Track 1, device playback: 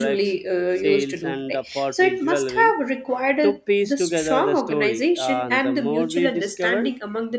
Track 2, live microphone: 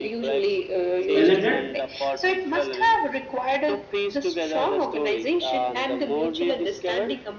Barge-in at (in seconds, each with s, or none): 1.1 s